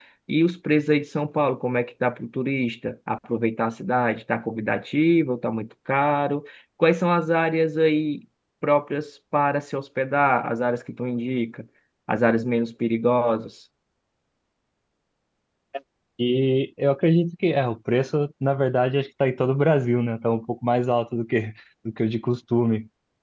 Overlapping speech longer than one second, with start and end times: none

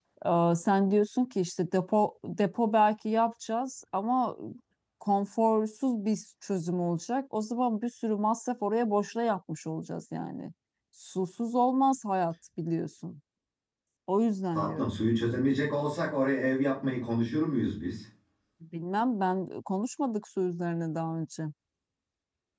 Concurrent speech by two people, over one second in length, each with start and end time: none

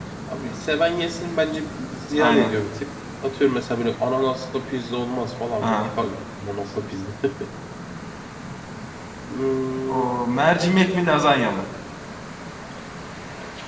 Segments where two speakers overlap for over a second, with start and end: none

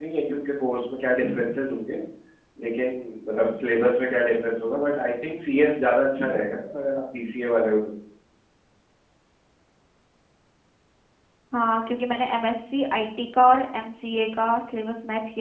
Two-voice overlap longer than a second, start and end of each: none

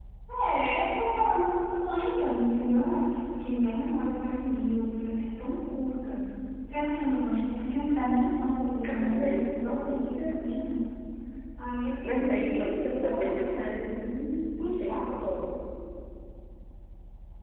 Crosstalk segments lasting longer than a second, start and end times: 8.8-10.4, 12.0-13.5

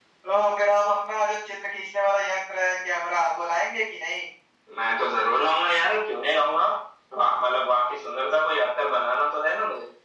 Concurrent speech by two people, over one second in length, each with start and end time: none

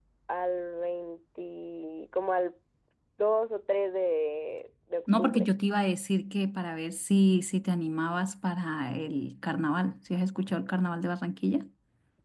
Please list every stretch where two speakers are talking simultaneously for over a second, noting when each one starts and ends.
none

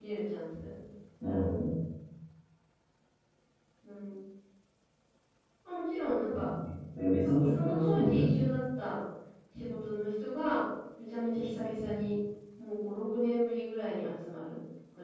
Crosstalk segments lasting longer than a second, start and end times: 7.2-8.4

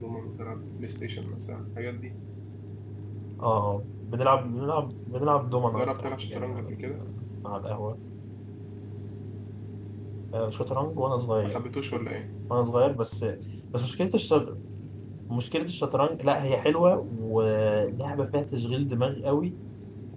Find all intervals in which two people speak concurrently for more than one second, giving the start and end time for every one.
5.8-7.0

